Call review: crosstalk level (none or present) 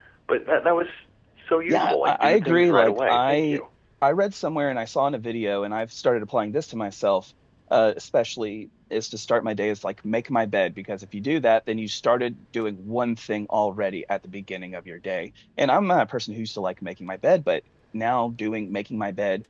present